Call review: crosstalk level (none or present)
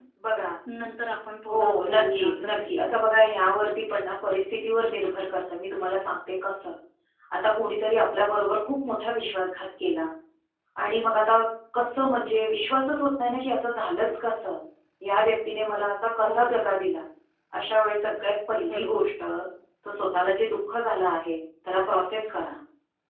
present